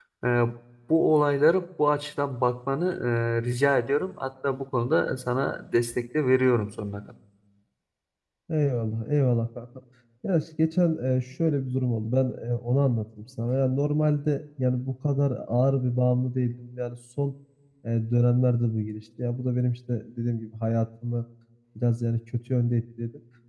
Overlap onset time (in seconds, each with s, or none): none